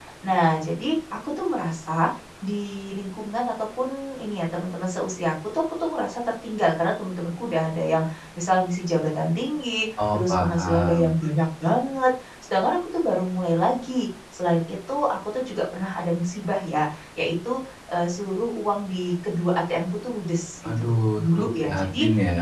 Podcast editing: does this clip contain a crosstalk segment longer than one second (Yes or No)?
Yes